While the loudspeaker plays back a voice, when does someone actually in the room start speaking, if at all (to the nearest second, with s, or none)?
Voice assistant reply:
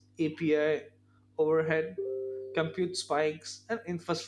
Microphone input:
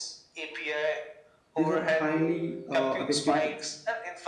2 s